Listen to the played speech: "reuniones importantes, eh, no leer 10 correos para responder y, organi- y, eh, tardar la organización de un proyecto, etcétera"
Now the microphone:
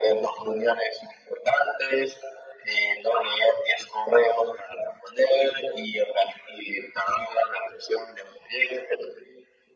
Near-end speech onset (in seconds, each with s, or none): none